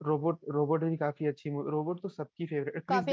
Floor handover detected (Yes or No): Yes